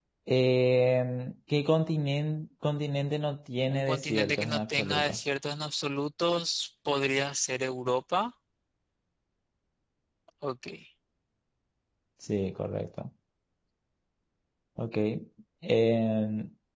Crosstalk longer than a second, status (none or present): present